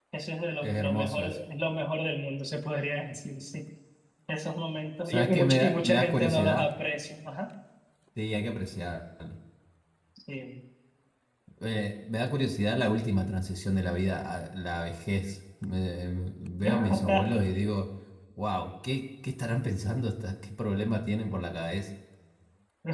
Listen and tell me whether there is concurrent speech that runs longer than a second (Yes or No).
Yes